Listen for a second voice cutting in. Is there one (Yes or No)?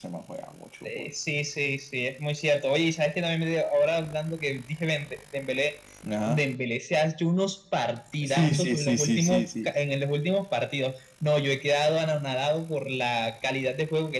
Yes